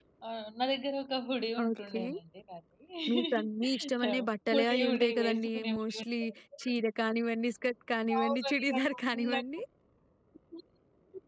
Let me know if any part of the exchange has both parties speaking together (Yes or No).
Yes